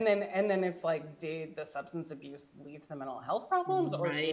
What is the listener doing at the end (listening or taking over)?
listening